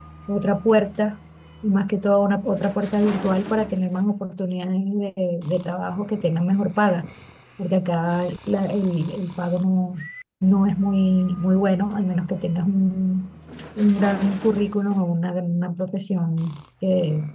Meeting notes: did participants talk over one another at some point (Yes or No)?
No